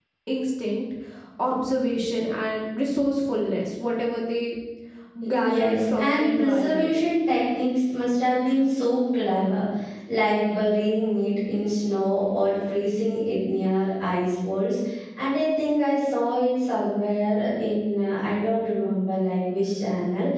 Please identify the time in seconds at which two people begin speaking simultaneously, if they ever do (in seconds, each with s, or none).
5.3 s